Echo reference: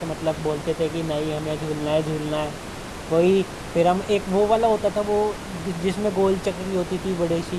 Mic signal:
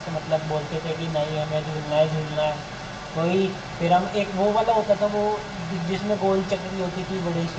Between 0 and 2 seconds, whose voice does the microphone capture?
echo only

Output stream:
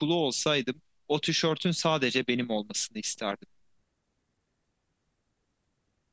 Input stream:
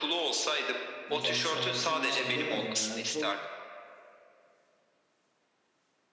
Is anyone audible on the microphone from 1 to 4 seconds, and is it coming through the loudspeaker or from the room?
both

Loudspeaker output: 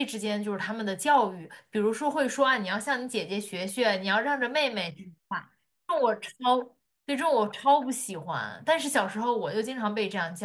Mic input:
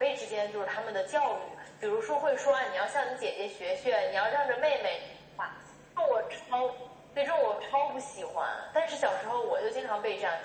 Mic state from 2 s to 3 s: echo only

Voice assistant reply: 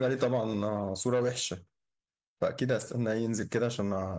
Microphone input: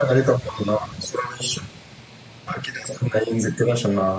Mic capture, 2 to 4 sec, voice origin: echo only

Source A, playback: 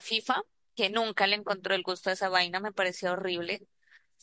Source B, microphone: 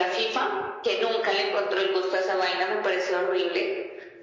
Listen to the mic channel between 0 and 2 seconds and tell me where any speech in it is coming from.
echo only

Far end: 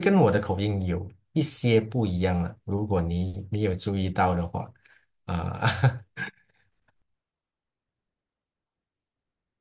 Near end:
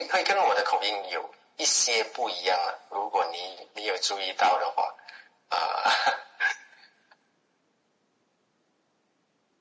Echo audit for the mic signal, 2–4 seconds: echo only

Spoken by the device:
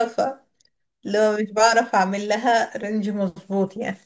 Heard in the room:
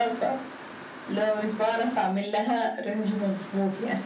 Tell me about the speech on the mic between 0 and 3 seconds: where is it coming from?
echo only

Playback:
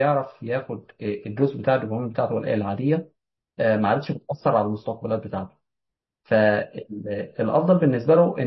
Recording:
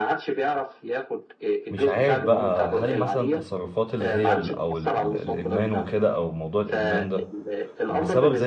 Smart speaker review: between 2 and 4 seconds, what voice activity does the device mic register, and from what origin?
both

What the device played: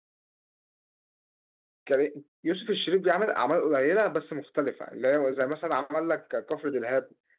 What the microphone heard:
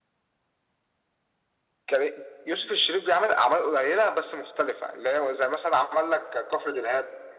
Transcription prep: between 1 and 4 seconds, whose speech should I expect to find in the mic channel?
echo only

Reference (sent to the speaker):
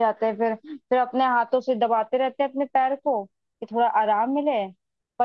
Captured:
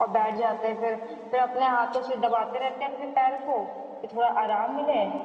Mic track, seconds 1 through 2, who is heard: echo only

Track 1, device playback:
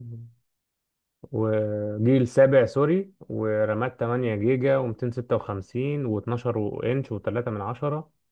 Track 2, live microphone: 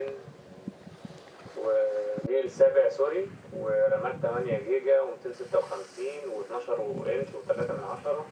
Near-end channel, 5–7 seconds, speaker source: echo only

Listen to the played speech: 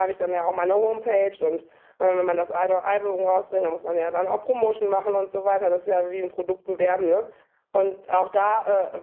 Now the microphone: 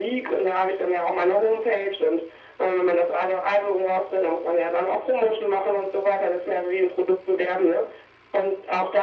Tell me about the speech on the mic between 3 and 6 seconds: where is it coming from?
echo only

